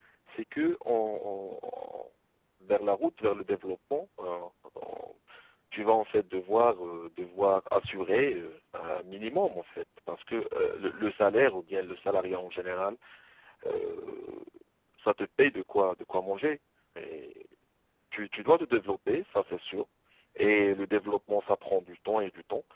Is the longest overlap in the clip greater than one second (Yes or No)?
No